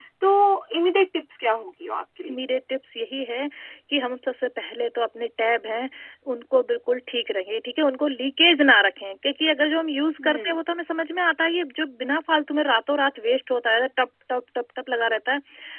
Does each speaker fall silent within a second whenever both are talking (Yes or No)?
Yes